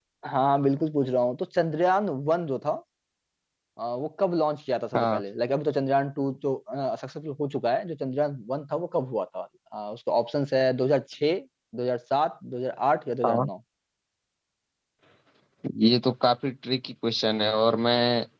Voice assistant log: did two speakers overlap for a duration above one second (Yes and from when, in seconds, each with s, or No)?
No